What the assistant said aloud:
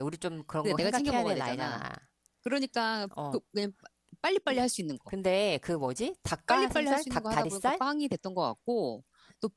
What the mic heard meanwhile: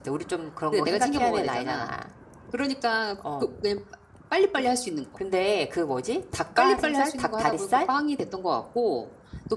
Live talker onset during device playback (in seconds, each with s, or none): none